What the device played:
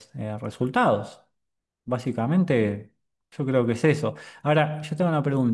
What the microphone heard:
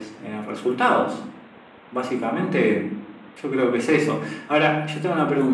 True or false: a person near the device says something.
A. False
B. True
A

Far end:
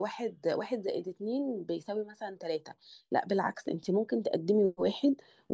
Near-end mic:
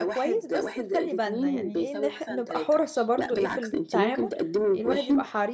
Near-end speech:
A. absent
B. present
B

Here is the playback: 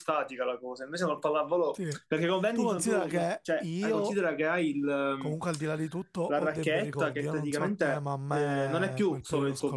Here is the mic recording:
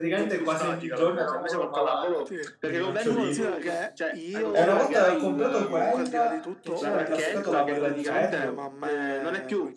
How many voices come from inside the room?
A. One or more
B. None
A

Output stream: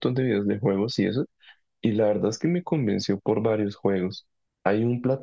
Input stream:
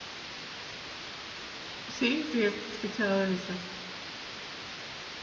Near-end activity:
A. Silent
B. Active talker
B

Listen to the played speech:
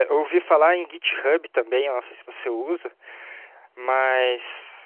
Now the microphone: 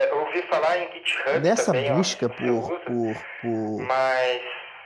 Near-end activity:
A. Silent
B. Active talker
B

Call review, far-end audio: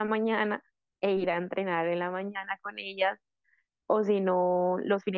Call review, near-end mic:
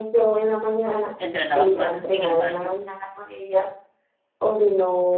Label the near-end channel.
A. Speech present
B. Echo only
A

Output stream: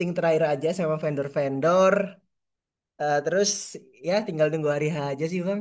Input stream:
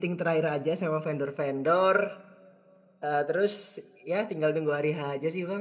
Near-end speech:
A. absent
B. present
A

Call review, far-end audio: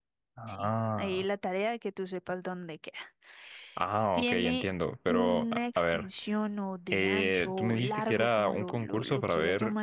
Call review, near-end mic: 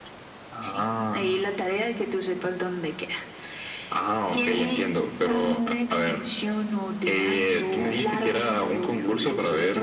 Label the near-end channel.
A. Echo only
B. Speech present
A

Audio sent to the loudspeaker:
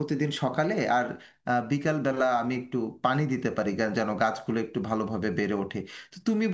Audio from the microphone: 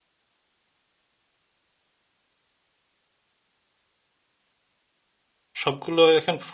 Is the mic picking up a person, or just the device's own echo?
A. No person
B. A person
B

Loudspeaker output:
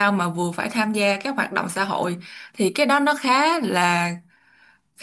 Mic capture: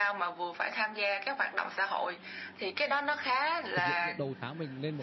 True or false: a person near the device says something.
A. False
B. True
B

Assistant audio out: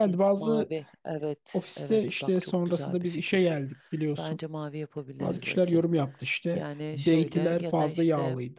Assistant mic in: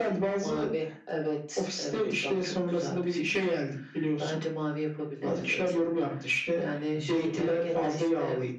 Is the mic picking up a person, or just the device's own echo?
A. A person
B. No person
B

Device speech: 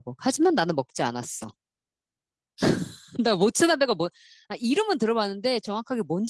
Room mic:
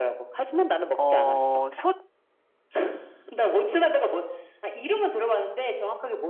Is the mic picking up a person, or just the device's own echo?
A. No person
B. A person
B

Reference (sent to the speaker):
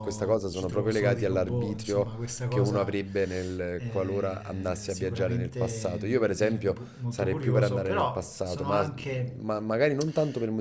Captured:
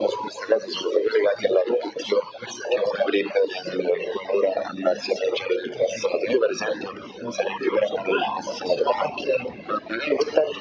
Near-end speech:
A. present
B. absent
B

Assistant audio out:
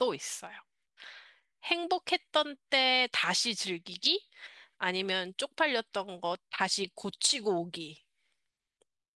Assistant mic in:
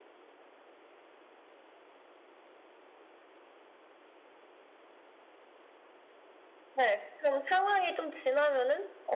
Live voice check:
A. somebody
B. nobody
A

